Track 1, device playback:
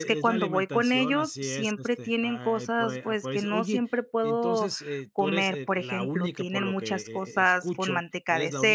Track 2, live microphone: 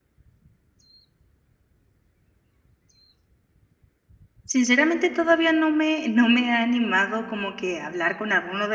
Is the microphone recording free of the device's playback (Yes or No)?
Yes